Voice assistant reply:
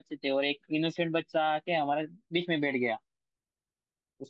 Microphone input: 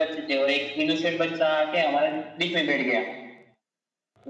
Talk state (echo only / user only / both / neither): echo only